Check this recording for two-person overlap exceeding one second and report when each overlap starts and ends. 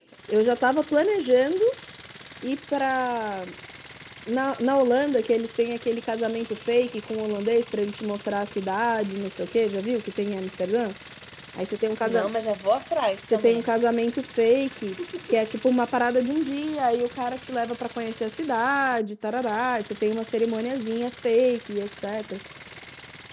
none

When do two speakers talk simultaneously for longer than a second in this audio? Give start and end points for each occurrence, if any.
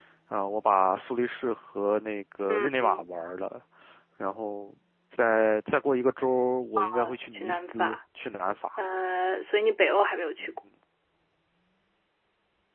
6.8-8.0

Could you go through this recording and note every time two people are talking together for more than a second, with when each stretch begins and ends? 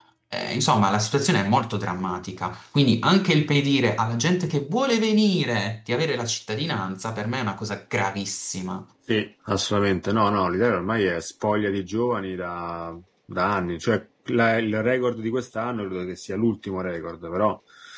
none

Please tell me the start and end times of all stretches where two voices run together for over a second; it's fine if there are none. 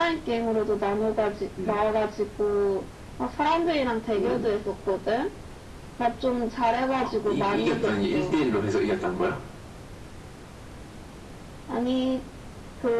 7.0-8.3

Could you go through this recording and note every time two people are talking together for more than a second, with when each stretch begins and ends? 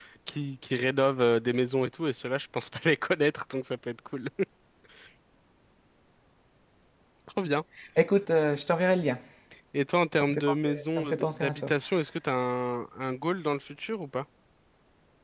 10.1-11.7

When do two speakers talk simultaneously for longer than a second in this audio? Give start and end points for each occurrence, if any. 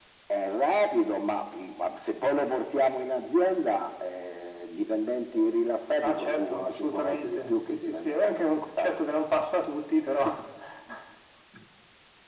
6.0-8.9

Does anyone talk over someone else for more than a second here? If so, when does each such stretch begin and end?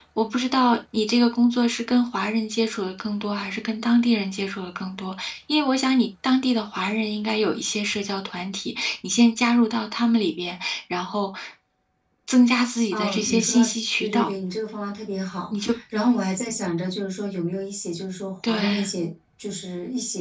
12.9-14.3

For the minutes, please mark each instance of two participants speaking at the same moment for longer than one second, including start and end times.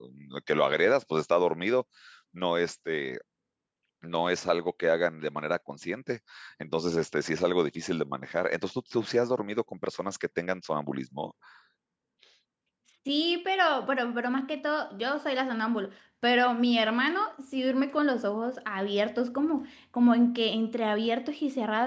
none

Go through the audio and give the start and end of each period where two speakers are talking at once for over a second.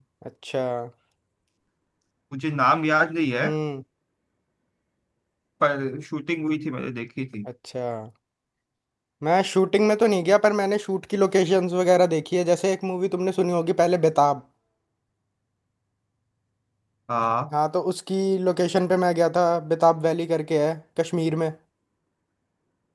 none

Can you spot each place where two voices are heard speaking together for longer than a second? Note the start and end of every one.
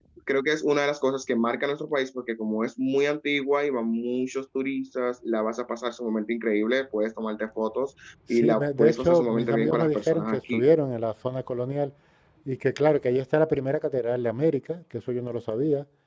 8.3-10.6

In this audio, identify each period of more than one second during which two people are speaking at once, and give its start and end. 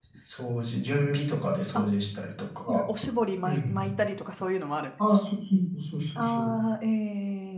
none

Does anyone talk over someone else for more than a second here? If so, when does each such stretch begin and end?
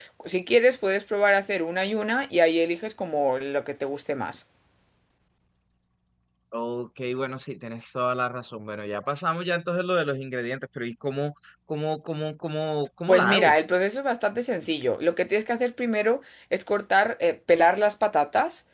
none

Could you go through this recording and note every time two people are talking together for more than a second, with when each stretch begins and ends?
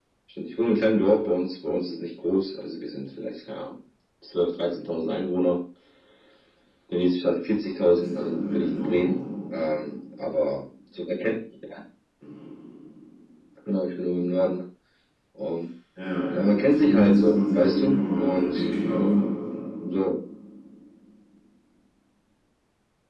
7.9-9.2, 16.7-19.3

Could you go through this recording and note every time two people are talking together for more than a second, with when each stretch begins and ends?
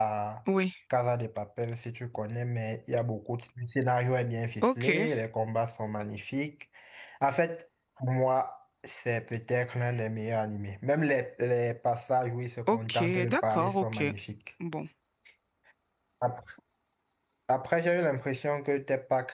12.7-14.0

